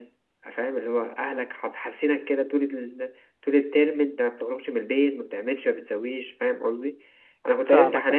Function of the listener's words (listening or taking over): listening